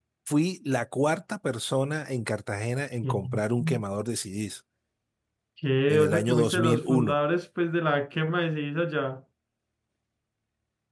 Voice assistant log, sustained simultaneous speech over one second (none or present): present